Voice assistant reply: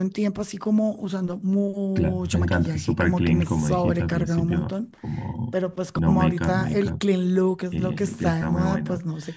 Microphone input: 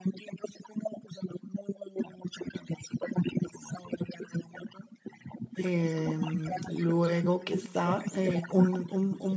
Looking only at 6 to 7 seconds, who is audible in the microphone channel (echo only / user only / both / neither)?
both